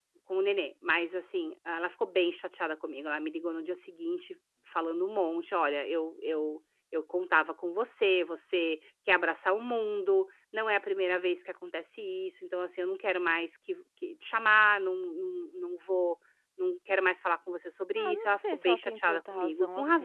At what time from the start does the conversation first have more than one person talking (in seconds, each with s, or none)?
18.0 s